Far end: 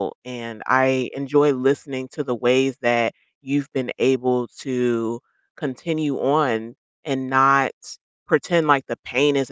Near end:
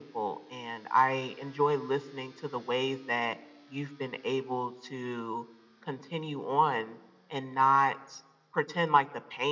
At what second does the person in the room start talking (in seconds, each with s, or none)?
none